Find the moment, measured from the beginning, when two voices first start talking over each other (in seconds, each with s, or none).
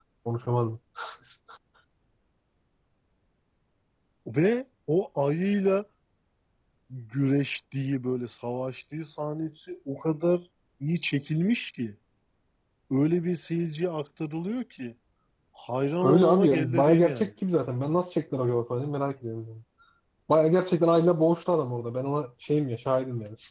16.0 s